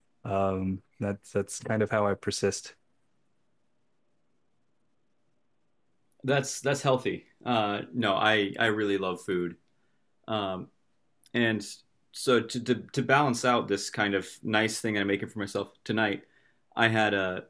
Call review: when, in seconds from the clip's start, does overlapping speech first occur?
none

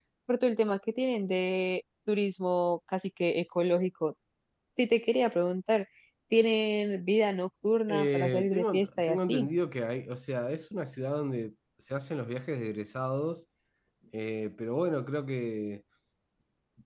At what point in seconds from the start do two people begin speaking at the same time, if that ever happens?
7.9 s

